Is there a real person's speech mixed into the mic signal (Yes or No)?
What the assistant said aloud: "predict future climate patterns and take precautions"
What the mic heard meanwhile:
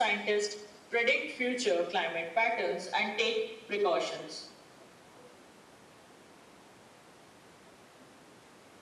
No